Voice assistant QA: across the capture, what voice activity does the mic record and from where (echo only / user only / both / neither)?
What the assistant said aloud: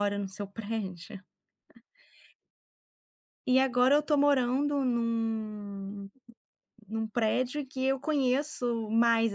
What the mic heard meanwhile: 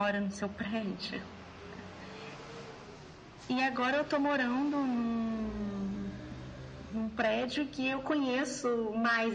echo only